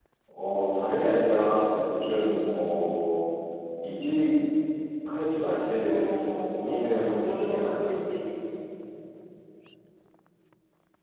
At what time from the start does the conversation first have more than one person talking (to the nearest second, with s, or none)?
6 s